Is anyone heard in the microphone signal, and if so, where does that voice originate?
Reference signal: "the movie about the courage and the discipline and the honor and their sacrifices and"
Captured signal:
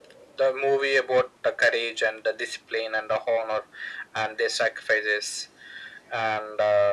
echo only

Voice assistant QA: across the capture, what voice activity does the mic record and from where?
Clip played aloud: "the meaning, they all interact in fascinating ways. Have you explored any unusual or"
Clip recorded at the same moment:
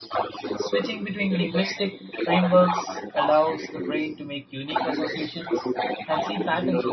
both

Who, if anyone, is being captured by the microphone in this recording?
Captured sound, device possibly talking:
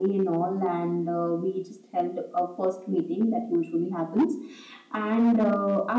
echo only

